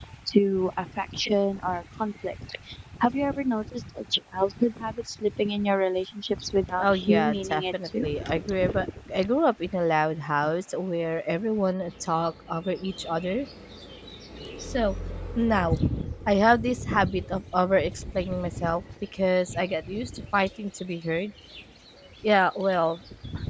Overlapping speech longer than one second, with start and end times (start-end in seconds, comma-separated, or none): 6.8-8.1